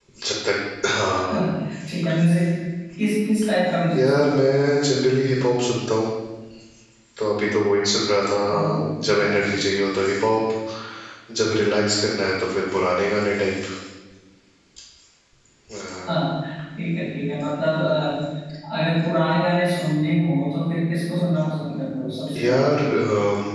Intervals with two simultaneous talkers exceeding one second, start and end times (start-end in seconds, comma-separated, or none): none